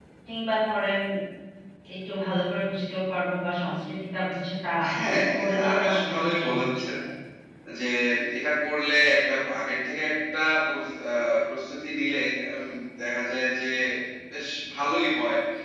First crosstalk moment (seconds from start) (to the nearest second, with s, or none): 5 s